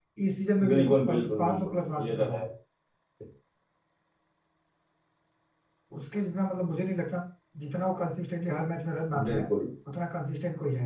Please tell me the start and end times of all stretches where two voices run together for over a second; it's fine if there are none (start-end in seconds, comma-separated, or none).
0.7-2.4